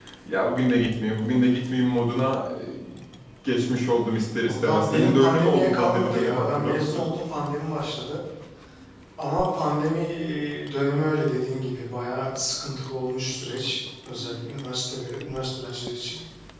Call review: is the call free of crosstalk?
No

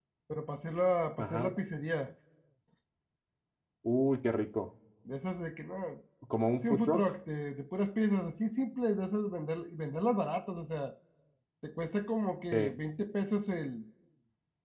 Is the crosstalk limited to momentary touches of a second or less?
Yes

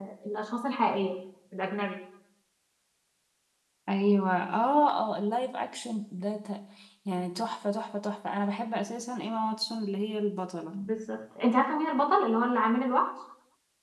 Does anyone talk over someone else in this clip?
No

